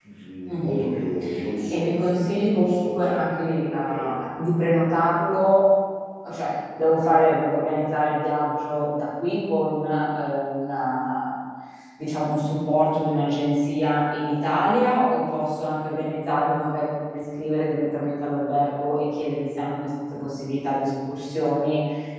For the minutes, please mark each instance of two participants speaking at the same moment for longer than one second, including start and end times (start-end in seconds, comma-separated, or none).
1.7-3.2